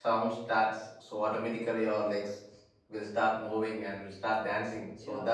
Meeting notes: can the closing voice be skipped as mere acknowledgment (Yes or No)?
No